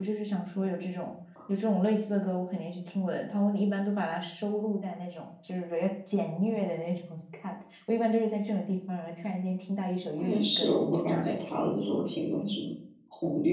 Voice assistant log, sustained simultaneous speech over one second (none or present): present